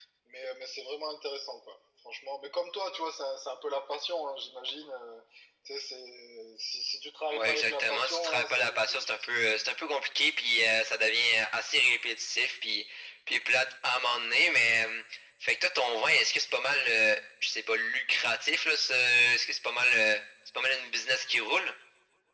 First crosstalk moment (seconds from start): 7 s

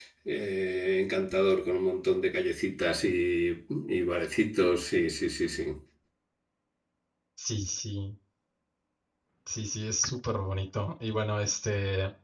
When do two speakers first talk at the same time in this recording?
none

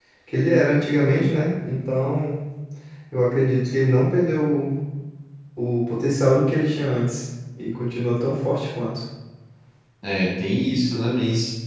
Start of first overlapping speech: none

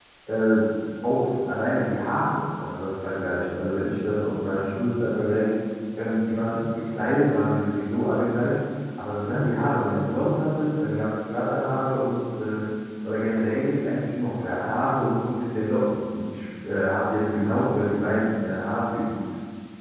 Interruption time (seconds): none

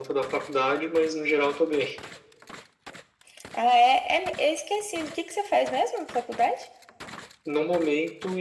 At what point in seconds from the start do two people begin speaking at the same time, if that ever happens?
none

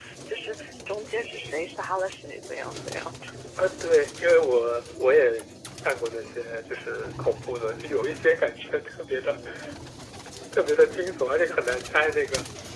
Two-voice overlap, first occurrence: none

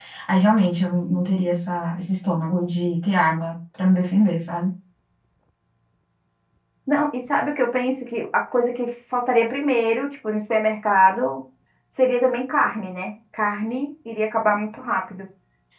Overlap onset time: none

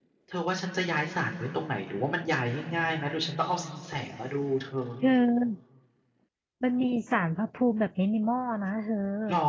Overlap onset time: none

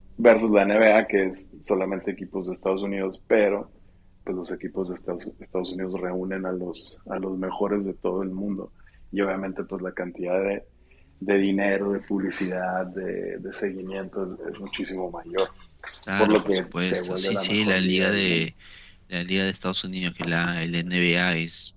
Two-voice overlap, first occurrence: 16 s

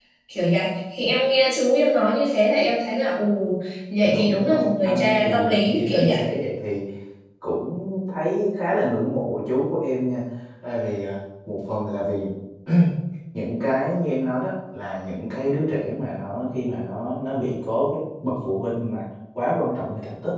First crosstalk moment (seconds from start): 4 s

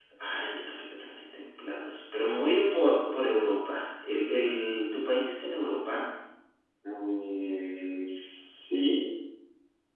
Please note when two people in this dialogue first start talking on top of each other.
none

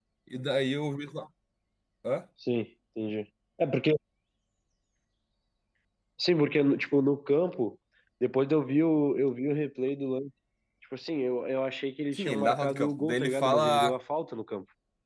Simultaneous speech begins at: 12 s

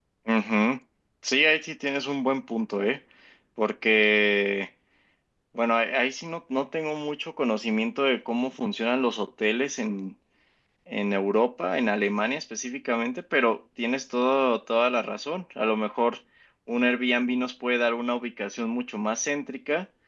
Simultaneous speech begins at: none

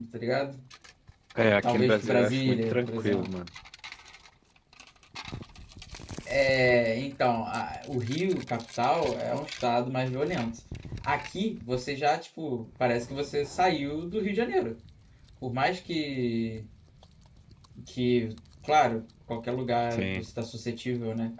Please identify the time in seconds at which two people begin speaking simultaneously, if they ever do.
2 s

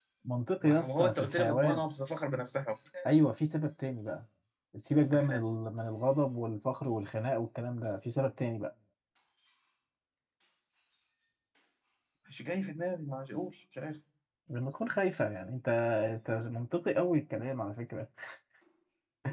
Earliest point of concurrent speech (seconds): 1 s

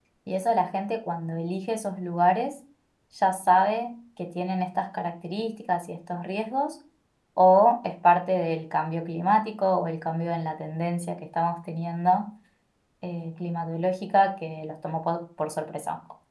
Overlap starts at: none

